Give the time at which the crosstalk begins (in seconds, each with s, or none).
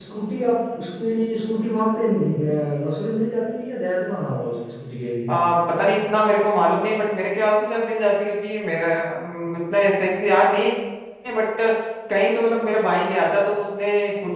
none